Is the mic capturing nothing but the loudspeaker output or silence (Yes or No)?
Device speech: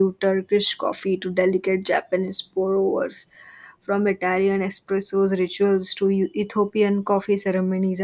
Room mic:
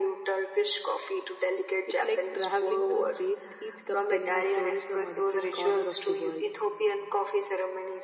No